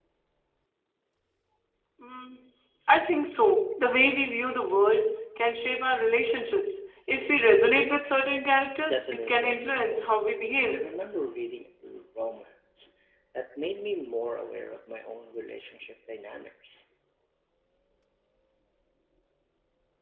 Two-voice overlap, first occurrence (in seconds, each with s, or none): 8.9 s